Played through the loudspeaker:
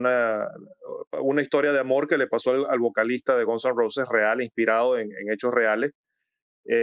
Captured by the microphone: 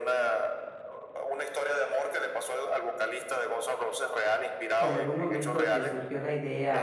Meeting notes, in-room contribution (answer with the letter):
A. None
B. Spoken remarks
B